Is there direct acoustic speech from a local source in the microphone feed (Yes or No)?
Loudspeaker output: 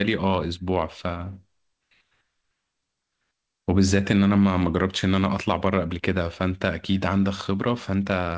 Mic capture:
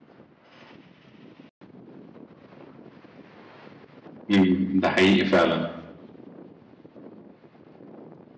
Yes